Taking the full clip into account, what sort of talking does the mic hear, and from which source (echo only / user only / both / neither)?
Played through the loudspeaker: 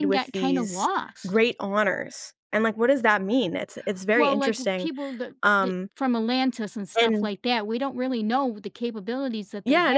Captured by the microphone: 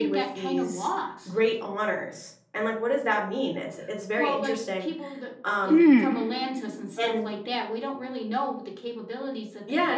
both